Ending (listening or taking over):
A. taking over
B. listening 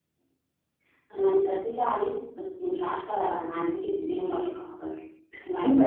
A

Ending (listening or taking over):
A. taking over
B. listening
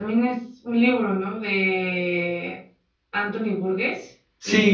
A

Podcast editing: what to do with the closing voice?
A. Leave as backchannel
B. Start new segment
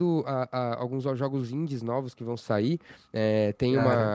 A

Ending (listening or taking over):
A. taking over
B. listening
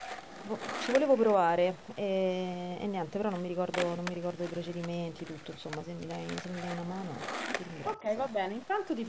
A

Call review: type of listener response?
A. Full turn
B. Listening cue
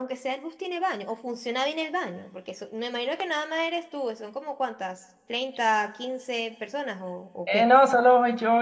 A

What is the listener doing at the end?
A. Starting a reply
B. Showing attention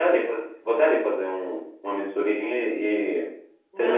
B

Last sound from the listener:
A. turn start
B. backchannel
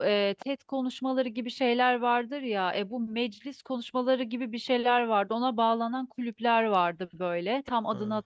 B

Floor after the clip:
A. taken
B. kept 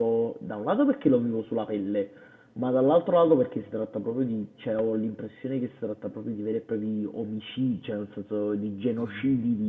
B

